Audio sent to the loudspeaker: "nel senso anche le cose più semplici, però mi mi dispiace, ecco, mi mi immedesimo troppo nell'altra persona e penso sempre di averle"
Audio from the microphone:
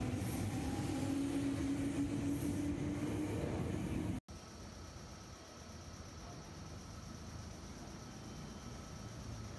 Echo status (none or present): none